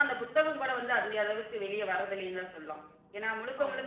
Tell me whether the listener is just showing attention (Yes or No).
Yes